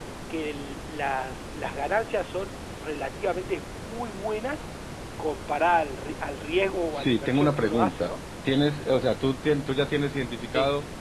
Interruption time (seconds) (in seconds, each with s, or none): 6.9 s